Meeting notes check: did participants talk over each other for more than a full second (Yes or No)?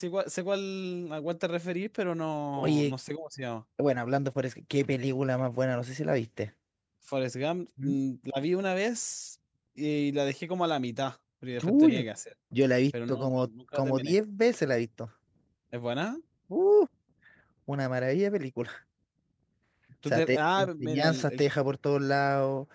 Yes